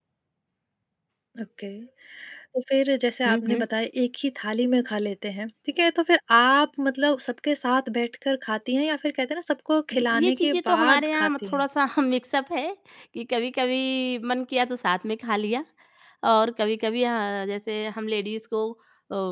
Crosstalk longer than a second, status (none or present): present